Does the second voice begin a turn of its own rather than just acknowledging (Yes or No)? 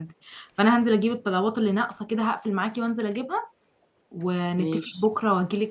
No